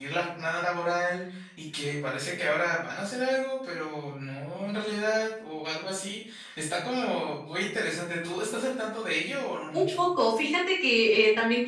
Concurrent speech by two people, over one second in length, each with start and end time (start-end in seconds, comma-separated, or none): none